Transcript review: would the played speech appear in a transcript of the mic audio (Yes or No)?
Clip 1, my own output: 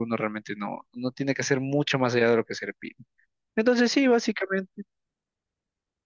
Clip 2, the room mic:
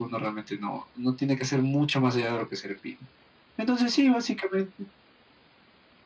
Yes